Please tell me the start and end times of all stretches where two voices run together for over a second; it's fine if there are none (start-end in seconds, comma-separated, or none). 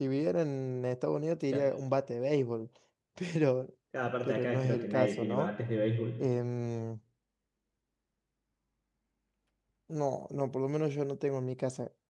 4.2-5.5